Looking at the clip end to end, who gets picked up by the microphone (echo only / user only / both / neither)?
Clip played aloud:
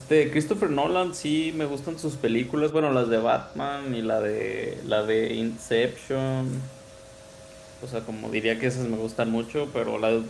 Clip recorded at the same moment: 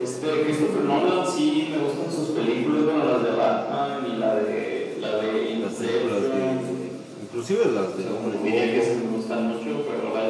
both